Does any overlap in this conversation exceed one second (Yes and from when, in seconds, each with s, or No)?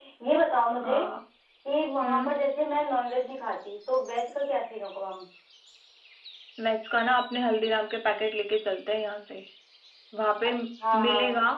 No